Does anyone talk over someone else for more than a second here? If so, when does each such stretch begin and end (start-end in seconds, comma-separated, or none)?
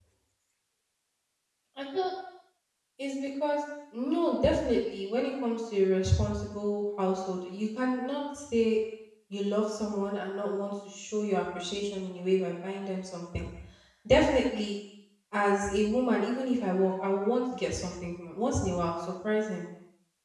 none